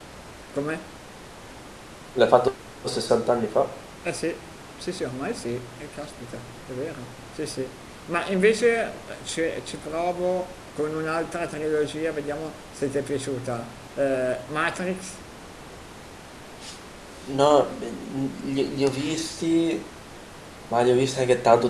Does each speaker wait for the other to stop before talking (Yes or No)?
Yes